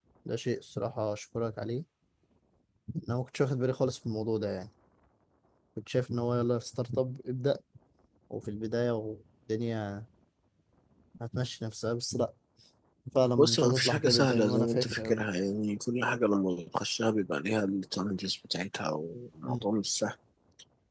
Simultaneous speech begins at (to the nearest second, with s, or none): 13 s